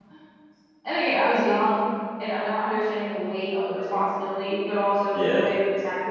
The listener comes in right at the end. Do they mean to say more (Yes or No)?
No